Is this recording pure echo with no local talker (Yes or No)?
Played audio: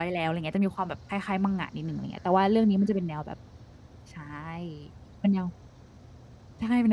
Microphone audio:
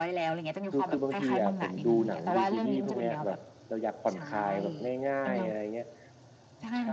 No